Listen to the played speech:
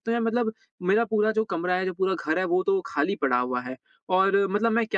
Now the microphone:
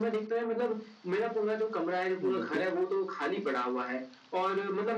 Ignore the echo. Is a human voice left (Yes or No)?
Yes